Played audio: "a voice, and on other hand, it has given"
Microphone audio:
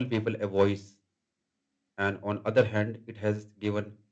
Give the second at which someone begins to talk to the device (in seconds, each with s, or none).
none